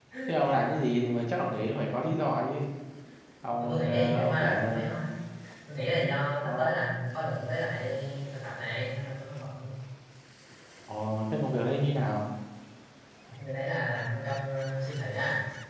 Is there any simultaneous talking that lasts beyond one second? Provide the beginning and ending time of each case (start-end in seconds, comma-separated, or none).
3.6-4.9